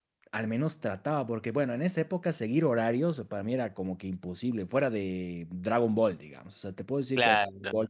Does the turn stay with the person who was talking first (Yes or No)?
Yes